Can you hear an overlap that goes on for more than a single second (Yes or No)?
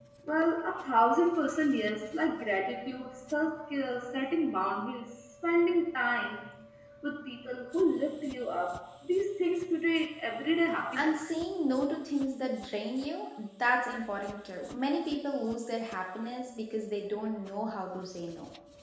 No